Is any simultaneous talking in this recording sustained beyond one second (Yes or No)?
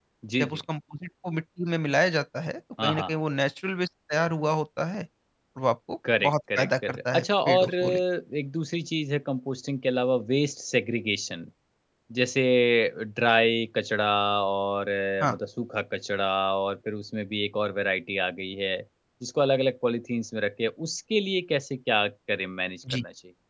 Yes